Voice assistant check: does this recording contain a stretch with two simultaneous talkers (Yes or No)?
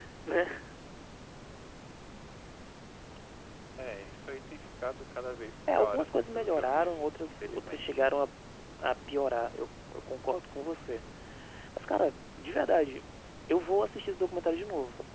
Yes